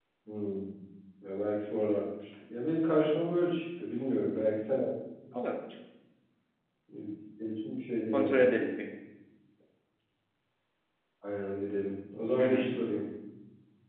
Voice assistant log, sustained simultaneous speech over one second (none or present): none